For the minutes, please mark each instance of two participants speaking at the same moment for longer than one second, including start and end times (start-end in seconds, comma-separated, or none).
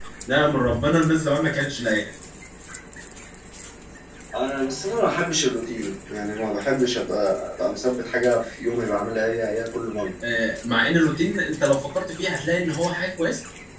none